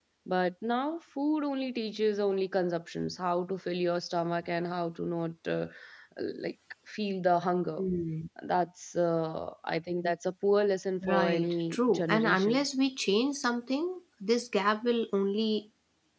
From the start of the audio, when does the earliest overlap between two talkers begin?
11.0 s

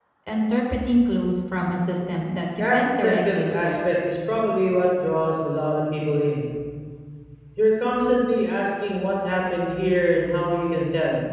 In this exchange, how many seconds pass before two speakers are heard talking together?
2.5 s

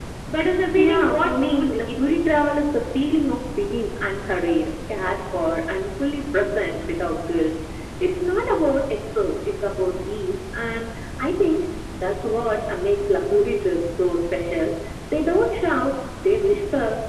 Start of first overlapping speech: 0.8 s

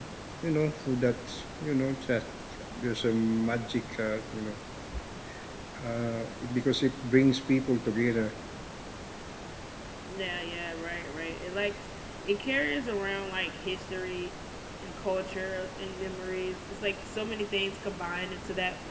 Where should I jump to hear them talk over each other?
none

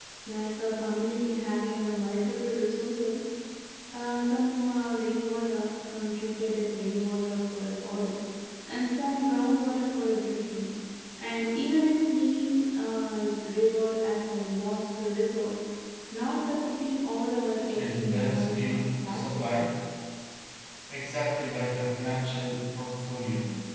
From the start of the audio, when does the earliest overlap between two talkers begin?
17.7 s

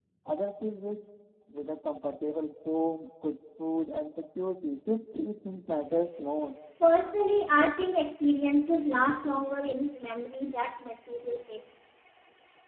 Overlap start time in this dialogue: none

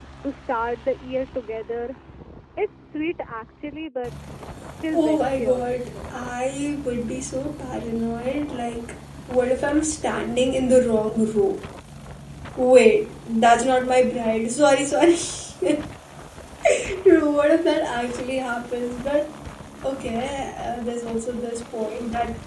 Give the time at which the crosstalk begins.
4.9 s

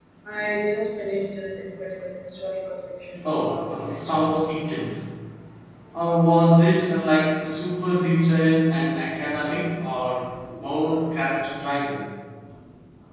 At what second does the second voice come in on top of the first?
3.2 s

